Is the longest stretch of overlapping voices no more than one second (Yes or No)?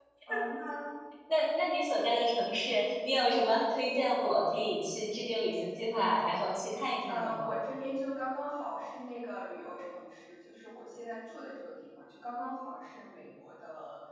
Yes